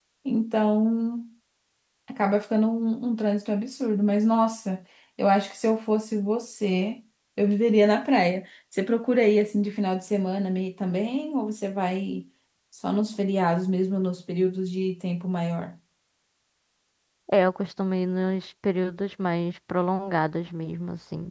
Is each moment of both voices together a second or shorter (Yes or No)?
Yes